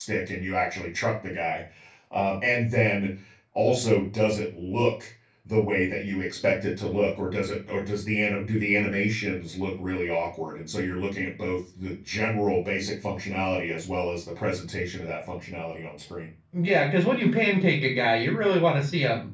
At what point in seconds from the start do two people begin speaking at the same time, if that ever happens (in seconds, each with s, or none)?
none